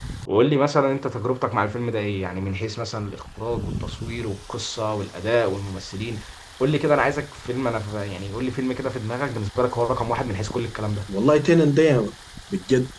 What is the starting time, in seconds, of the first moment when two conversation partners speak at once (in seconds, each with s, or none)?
none